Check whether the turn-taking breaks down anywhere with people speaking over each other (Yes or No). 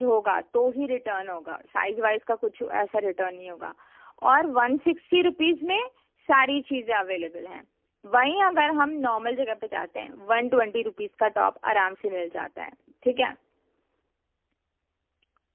No